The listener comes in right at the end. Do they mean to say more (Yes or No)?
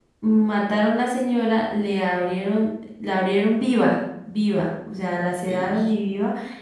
No